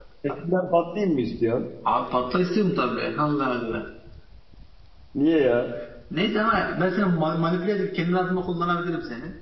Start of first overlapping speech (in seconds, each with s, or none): none